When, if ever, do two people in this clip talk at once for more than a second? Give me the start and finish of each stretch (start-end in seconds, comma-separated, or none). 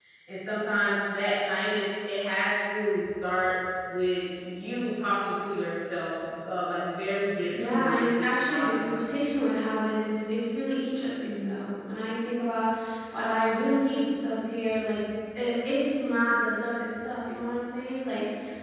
7.6-9.0